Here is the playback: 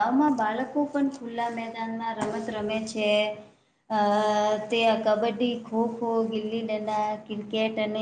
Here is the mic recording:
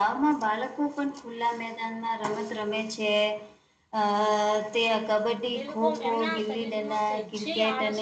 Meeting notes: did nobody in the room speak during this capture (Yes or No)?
No